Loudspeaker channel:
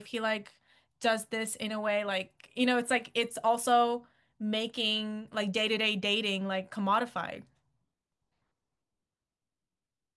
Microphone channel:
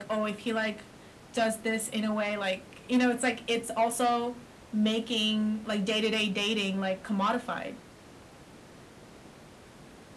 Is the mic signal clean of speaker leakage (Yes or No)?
No